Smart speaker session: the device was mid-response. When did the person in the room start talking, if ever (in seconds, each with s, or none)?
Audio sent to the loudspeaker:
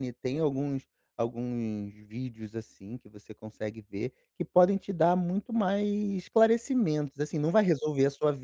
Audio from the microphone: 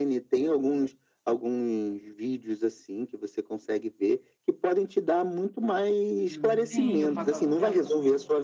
6.2 s